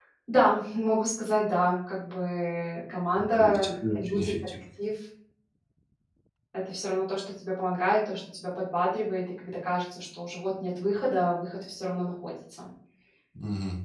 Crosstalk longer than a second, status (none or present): present